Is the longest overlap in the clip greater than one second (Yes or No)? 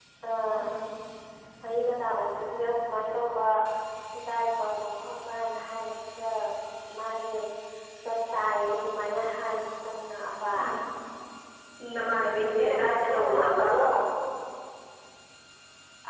Yes